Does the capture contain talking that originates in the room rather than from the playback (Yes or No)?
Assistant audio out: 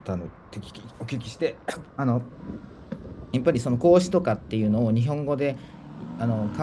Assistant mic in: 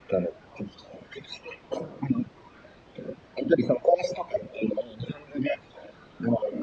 No